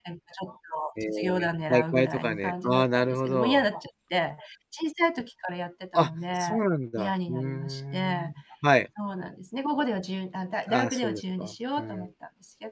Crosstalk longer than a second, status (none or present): present